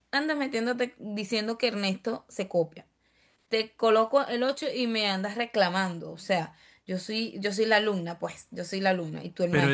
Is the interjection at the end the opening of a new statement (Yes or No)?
Yes